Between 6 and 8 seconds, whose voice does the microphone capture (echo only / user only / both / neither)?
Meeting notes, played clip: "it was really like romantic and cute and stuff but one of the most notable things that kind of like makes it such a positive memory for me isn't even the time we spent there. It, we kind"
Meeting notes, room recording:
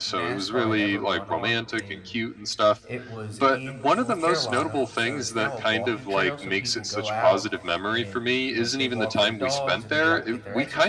both